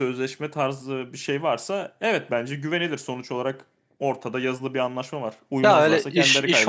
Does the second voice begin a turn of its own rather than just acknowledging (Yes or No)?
Yes